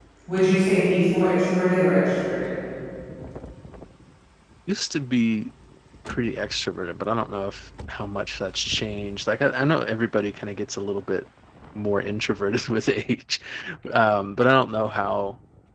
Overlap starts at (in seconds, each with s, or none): none